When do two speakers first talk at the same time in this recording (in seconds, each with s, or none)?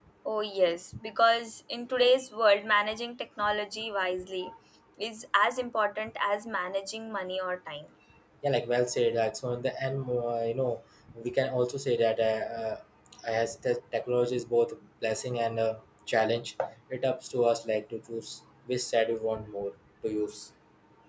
none